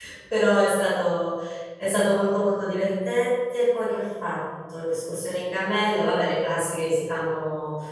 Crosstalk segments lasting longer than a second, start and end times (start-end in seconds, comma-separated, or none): none